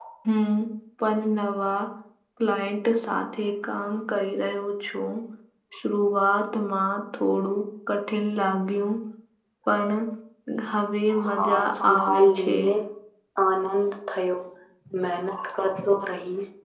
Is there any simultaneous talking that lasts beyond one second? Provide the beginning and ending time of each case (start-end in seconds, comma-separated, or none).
11.3-12.5